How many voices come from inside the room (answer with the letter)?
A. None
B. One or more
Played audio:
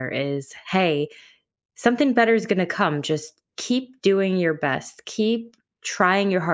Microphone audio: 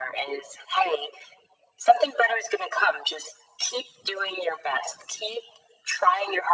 A